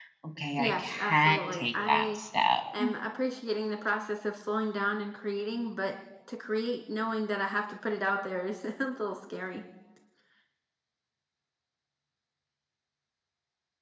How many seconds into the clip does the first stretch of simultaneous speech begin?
0.6 s

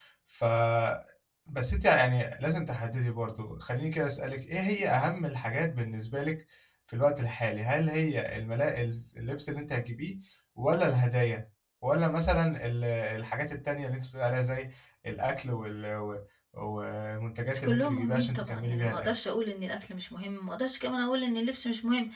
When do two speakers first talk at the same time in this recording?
17.6 s

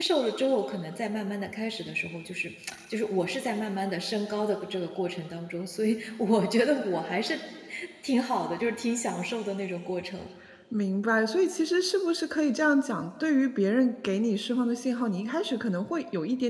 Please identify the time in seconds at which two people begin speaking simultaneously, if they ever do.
none

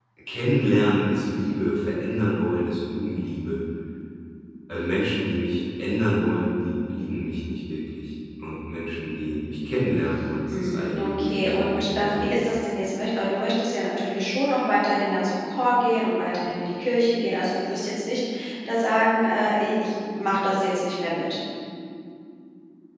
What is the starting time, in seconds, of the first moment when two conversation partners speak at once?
10.5 s

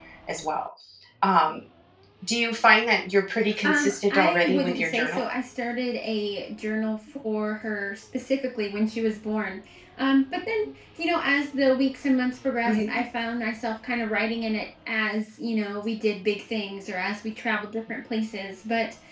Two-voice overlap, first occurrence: 3.6 s

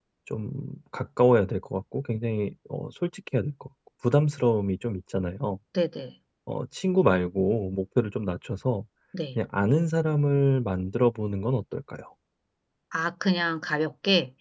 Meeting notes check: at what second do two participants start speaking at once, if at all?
none

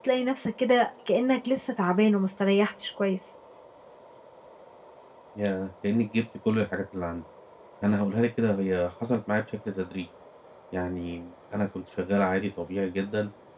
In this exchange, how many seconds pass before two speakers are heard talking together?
none

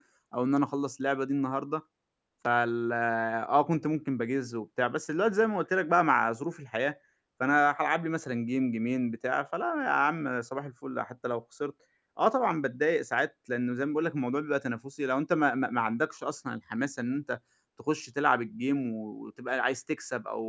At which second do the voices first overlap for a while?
none

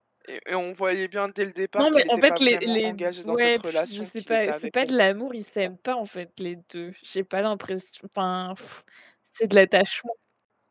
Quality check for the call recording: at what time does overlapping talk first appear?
1.8 s

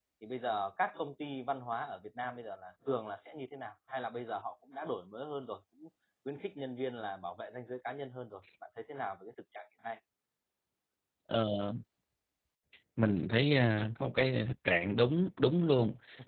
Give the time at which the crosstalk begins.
none

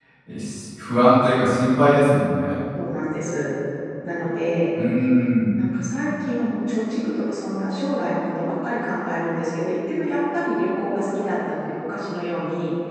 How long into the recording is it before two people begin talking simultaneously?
none

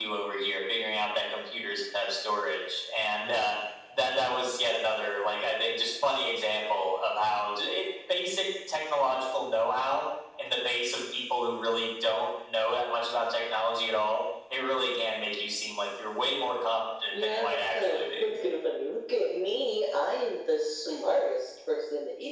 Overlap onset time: 17.1 s

